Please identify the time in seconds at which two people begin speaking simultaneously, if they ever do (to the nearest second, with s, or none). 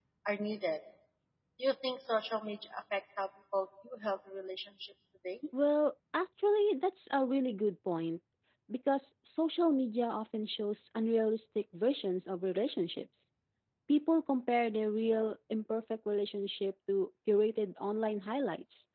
none